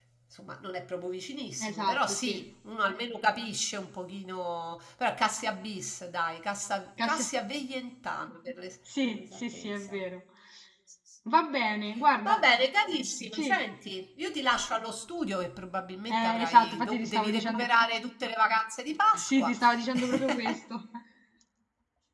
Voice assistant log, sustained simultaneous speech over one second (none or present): present